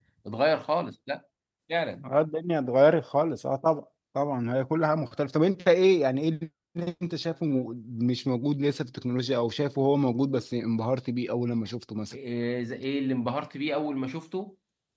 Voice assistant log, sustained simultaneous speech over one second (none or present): none